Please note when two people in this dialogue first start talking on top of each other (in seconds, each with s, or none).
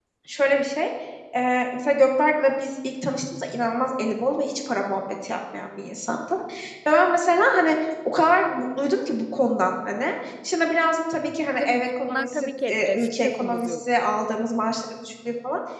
11.6 s